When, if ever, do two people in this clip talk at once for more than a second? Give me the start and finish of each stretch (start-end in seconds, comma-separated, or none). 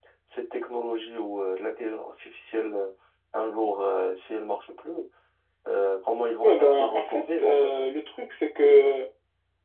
6.4-7.7